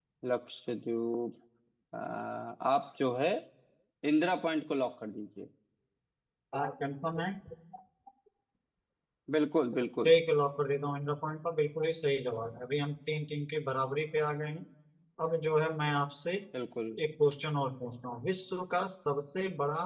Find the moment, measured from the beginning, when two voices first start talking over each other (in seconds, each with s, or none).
none